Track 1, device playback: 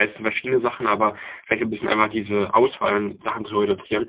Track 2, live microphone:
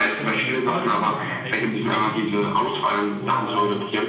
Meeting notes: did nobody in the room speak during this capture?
No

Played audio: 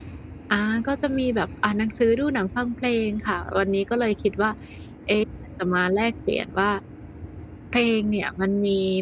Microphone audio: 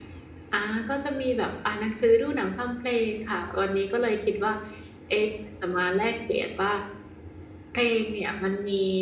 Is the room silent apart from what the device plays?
Yes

